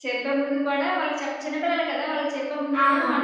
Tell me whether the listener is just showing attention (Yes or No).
Yes